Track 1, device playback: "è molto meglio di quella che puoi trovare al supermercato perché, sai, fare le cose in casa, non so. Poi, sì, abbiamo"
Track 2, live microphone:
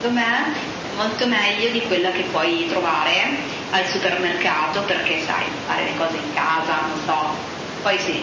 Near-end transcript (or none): none